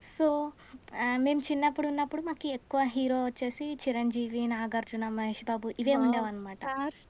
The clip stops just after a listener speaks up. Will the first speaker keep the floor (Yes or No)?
No